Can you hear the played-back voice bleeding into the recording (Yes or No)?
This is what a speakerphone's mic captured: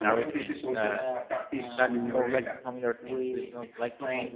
Yes